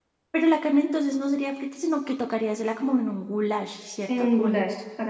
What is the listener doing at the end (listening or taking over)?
taking over